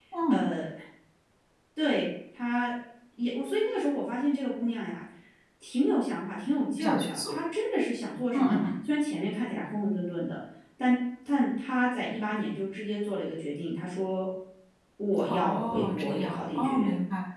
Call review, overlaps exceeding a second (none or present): present